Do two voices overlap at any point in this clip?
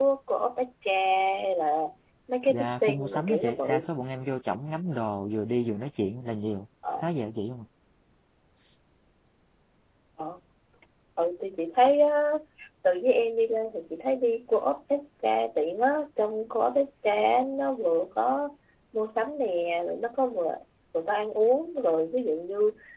Yes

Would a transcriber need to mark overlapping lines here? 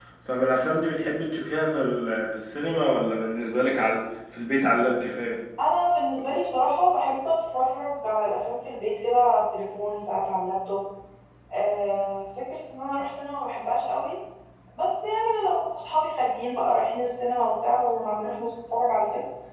No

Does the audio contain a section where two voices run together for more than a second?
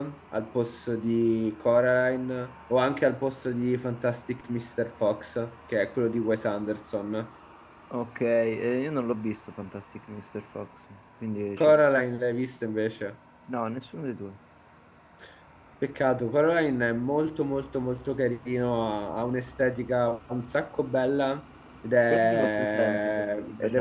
Yes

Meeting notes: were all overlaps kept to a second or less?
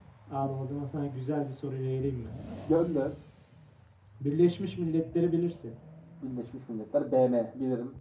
Yes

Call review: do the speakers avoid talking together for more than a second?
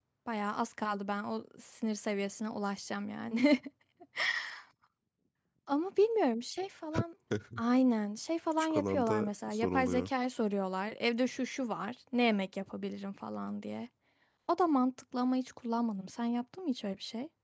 No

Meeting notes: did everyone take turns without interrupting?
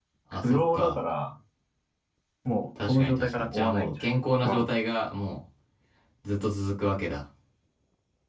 No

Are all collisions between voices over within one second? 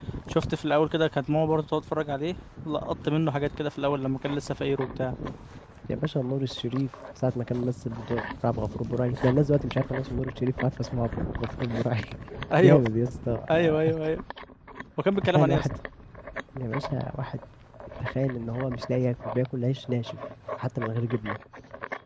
Yes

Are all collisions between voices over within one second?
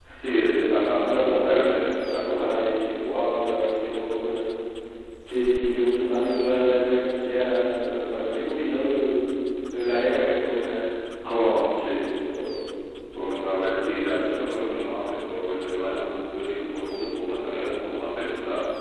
No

